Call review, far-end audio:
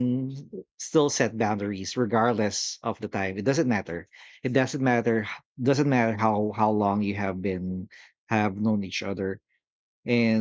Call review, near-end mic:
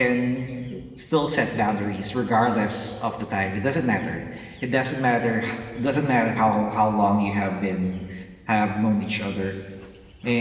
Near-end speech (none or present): none